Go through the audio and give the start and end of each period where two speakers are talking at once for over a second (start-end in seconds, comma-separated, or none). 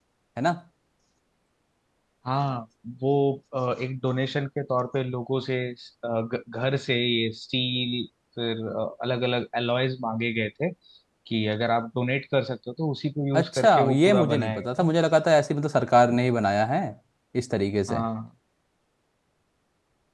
13.3-14.9